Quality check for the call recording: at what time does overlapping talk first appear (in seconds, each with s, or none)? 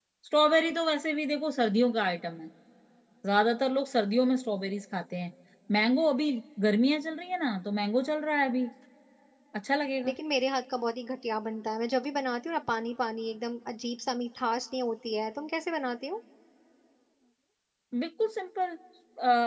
none